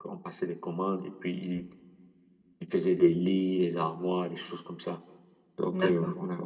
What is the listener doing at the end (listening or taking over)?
listening